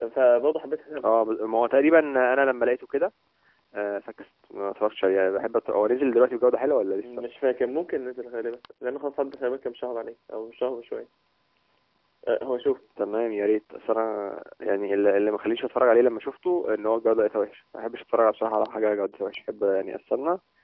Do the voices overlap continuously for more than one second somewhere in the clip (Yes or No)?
No